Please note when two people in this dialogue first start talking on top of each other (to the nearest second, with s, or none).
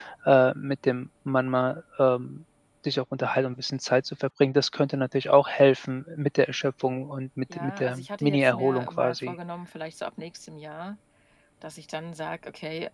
8 s